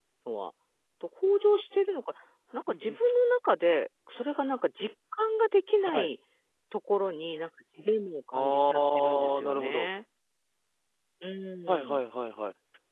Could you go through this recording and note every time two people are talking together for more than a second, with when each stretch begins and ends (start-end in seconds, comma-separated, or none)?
8.3-9.9